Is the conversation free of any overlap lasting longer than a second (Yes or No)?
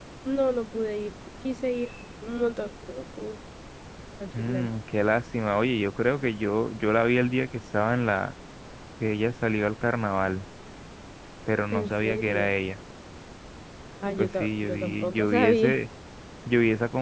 No